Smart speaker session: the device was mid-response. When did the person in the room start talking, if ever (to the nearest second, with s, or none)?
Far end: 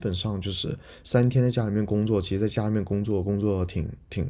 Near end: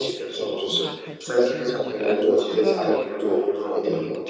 1 s